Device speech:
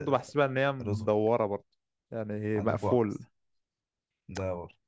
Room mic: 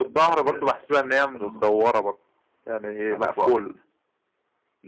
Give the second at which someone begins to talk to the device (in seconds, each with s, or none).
none